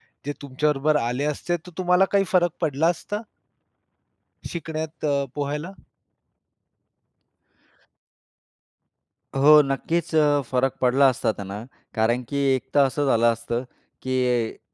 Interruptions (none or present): none